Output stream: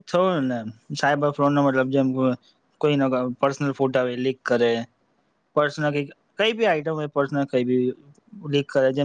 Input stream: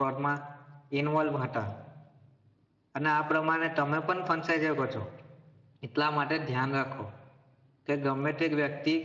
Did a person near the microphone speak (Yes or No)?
Yes